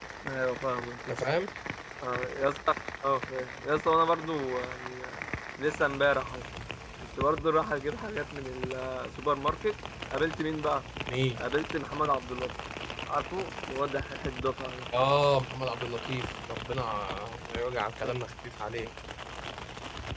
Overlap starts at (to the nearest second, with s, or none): none